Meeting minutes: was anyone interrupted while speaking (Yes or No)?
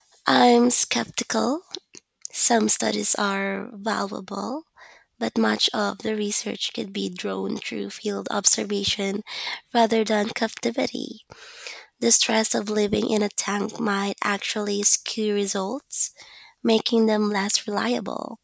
No